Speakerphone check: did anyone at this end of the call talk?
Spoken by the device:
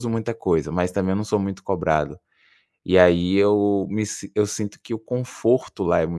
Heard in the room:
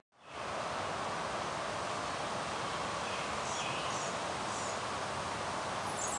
No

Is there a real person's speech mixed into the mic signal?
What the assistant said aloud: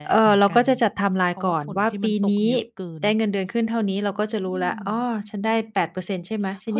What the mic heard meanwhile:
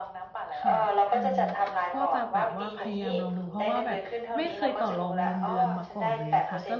Yes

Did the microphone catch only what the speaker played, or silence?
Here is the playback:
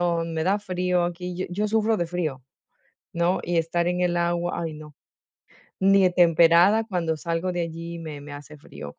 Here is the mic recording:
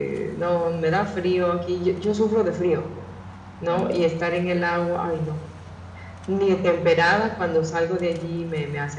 No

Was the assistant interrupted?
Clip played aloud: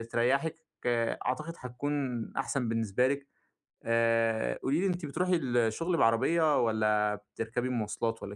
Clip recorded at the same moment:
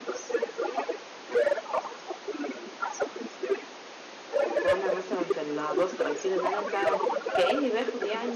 Yes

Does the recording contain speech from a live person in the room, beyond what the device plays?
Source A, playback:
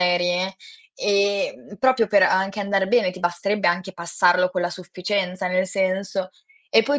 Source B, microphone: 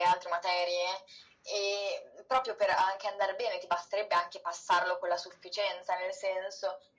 No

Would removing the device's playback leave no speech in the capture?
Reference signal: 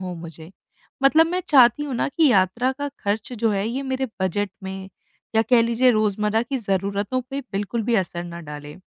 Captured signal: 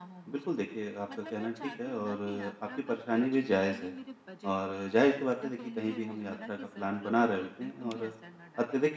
No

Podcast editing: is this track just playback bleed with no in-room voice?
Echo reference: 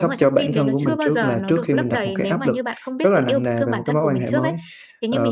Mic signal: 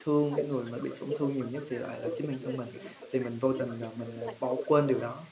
No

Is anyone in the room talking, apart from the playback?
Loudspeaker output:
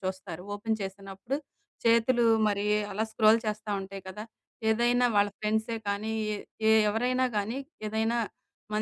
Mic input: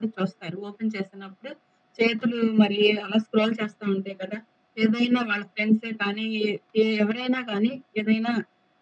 No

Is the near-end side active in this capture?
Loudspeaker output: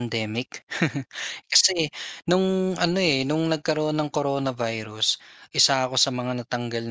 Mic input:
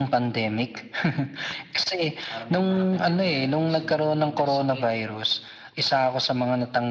Yes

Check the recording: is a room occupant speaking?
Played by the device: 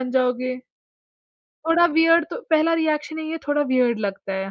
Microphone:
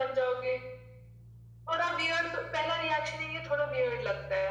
No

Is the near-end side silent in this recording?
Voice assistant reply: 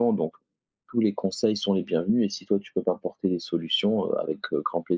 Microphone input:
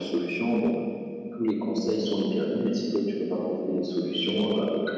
Yes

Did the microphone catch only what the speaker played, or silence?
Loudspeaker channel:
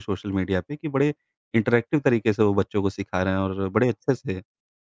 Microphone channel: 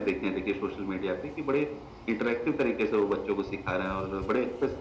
Yes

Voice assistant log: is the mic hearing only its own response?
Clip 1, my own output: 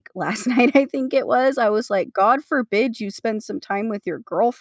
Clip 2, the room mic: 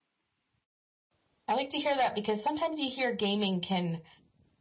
No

